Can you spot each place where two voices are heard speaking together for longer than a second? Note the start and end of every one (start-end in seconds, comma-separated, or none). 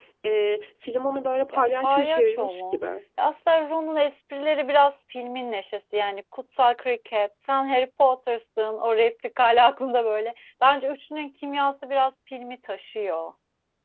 1.5-2.8